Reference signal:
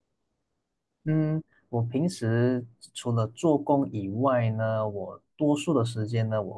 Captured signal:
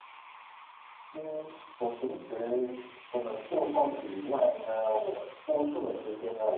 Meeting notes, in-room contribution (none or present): none